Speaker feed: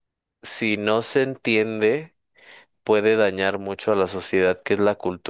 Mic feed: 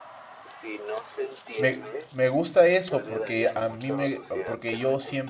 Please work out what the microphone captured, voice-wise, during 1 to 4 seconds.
both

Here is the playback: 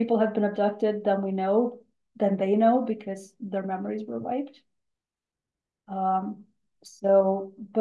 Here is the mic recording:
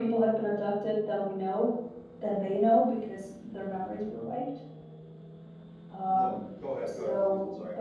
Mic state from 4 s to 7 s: both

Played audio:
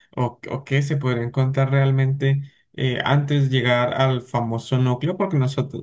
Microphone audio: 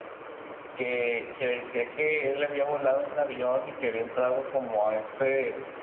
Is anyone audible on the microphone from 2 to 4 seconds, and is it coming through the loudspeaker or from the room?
user only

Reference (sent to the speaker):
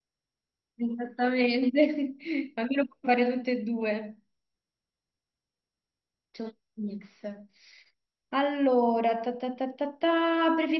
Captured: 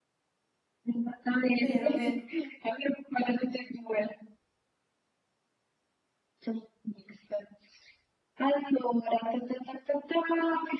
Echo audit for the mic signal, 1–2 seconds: both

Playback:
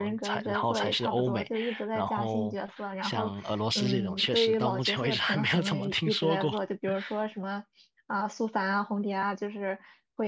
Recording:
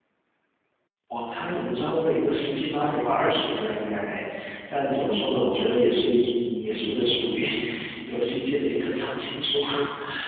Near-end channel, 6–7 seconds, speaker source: user only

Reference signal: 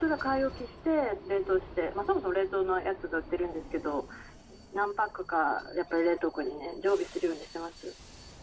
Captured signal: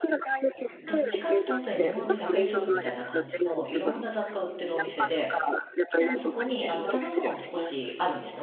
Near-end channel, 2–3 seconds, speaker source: both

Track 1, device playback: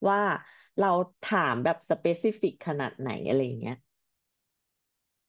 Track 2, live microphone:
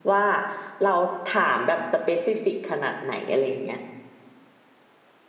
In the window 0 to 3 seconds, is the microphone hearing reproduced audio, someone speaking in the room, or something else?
echo only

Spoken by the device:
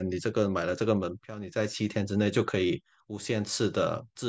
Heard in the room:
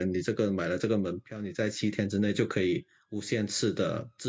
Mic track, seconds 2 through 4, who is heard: echo only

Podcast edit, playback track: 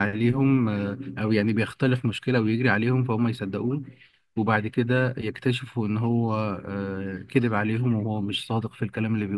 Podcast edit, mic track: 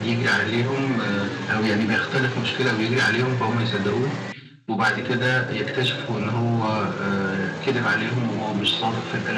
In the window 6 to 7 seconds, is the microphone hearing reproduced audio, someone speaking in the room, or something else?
echo only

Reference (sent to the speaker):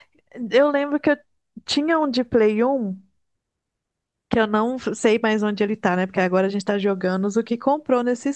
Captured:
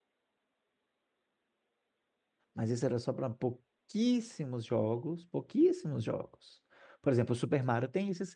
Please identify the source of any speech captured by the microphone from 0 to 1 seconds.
neither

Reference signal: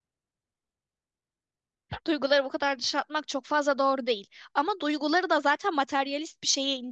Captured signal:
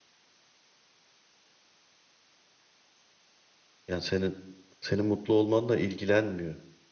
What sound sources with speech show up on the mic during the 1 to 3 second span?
neither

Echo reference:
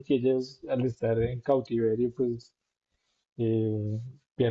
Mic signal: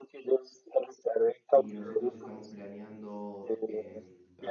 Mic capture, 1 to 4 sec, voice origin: both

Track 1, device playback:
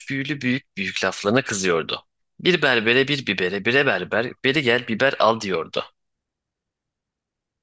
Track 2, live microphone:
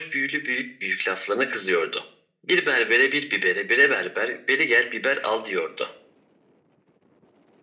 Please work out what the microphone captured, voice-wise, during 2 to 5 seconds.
echo only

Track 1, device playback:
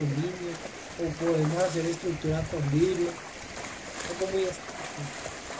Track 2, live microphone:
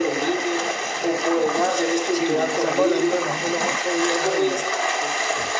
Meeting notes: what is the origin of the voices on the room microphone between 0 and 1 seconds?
echo only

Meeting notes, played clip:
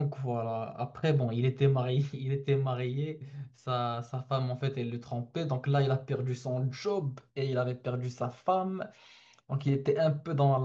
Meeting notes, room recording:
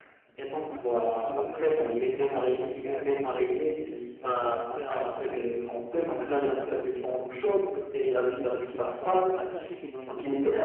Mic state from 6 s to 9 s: both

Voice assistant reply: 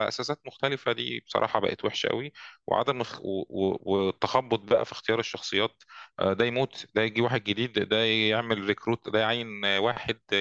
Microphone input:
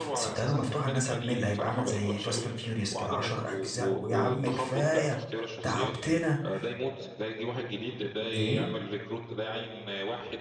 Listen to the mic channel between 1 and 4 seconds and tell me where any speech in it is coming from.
both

